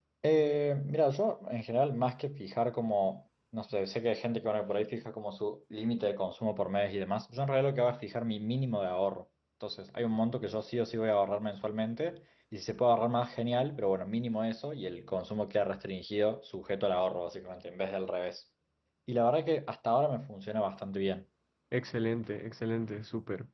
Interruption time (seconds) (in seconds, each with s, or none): none